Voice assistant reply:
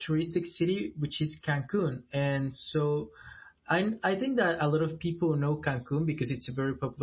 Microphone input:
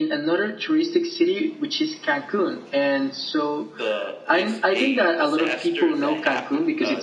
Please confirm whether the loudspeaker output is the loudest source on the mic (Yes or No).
Yes